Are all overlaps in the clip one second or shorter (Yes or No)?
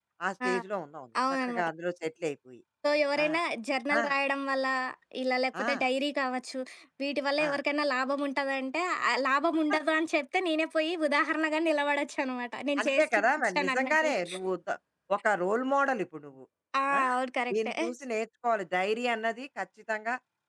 No